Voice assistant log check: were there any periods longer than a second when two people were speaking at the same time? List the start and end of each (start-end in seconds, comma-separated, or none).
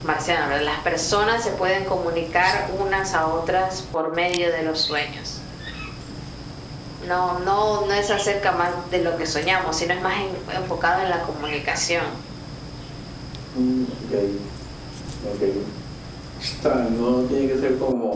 none